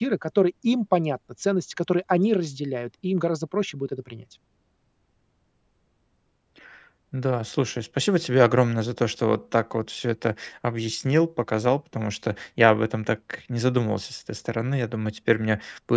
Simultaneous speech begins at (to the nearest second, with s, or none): none